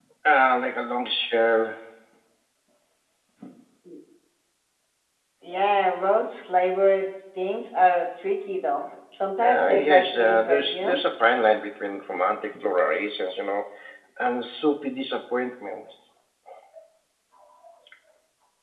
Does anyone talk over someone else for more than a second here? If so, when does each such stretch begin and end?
9.4-11.0

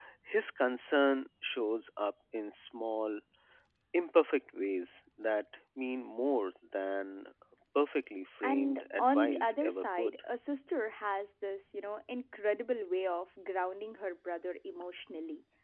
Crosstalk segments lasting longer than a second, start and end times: 8.4-10.1

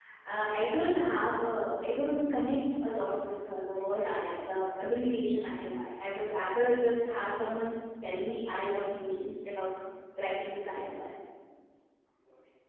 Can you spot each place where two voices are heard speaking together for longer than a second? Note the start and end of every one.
none

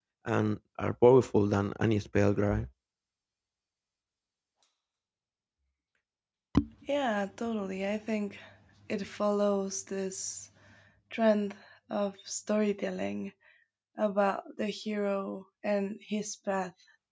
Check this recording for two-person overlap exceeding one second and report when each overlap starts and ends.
none

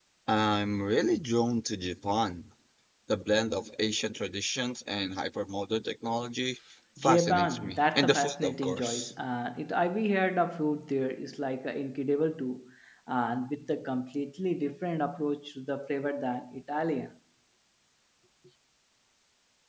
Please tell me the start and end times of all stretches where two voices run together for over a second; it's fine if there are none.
7.0-9.1

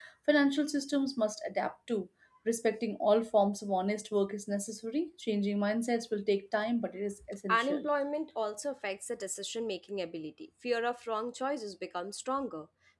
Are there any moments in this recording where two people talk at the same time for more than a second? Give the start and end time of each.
none

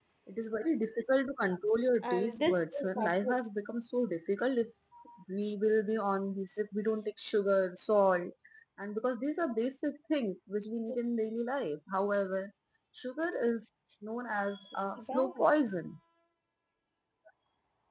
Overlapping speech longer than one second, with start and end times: 2.0-3.4

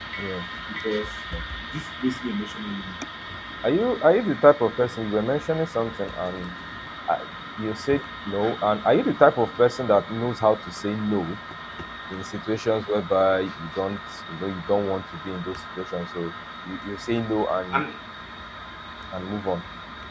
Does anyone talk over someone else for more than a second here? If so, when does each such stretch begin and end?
none

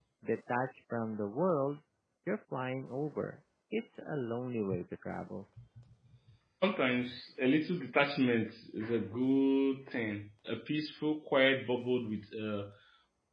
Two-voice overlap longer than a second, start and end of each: none

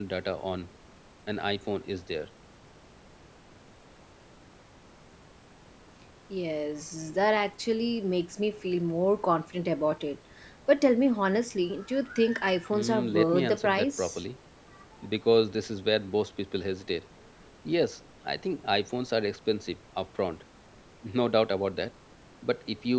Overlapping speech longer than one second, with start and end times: 12.7-14.2

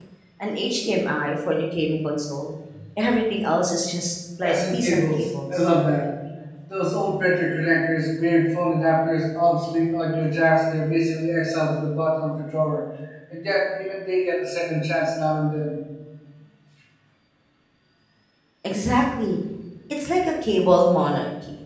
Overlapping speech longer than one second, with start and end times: 4.4-5.7

